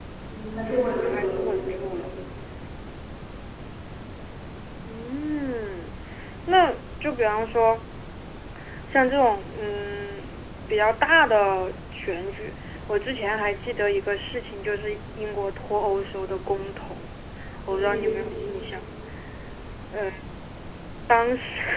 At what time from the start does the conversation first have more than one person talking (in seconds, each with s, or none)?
0.6 s